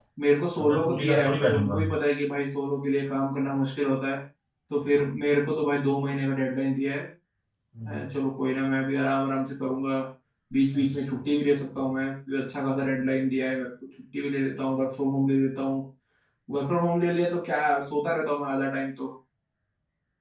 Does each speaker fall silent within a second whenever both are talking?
No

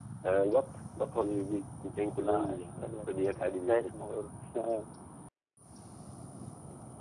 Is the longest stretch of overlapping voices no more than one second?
No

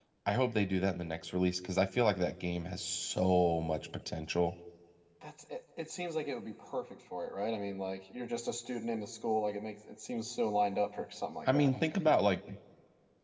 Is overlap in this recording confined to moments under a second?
Yes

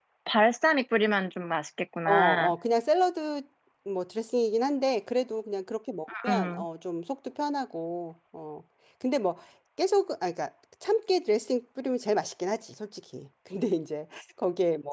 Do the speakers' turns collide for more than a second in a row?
No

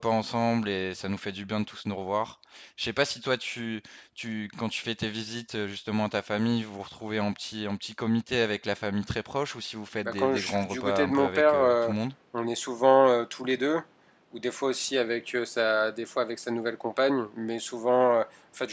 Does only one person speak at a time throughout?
No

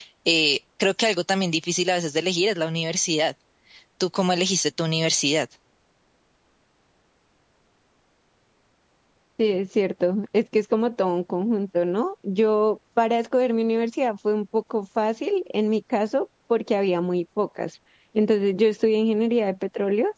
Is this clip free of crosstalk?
Yes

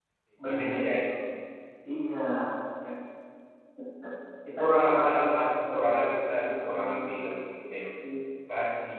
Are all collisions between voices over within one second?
No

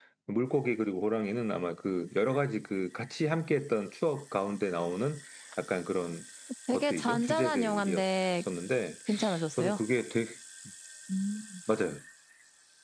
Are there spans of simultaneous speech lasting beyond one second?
Yes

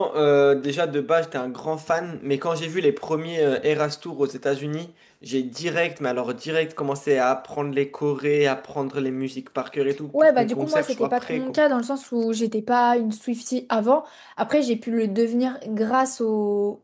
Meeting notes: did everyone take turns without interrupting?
No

